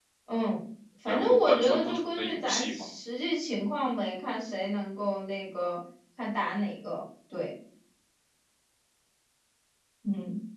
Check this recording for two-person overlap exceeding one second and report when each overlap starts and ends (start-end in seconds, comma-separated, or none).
1.1-2.7